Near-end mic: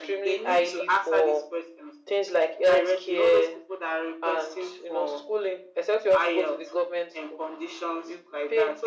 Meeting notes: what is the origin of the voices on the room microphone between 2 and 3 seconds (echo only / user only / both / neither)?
echo only